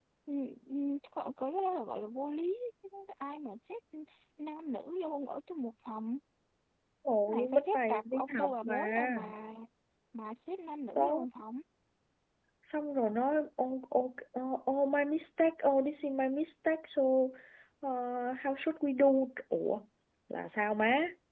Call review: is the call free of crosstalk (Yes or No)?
No